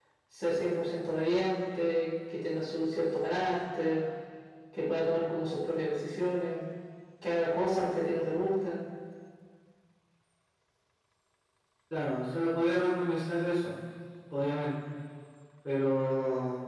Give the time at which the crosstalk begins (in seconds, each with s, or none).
none